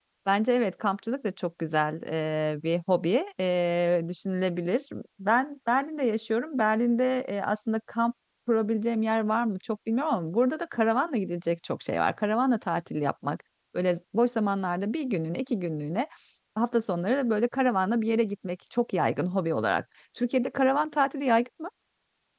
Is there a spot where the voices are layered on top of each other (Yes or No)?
No